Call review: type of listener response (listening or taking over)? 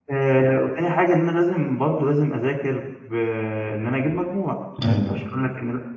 listening